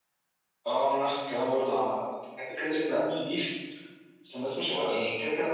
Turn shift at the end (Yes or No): No